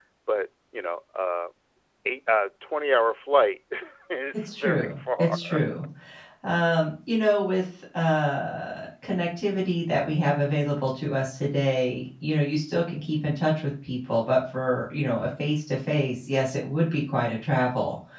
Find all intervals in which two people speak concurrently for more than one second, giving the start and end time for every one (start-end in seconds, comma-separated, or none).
4.3-5.6